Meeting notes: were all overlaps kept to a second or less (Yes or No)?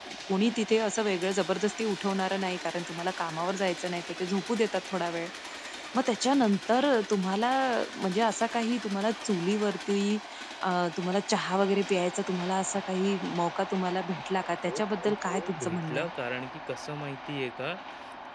No